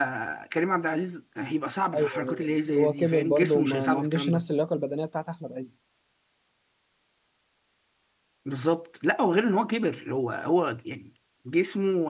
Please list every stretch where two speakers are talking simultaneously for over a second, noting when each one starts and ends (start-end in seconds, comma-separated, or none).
2.0-4.4